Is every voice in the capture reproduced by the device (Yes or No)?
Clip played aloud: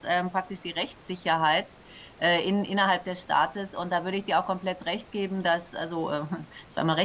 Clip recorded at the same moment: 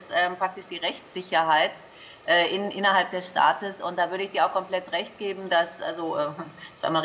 Yes